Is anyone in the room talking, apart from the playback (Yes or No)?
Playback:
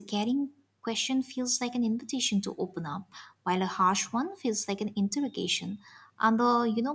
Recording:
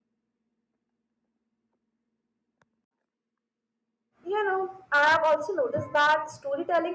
Yes